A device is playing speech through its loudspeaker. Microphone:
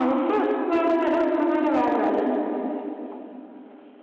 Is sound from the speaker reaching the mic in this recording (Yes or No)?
Yes